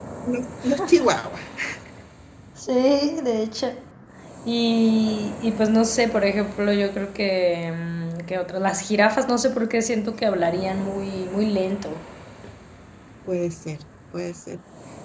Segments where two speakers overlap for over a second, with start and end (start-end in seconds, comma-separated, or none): none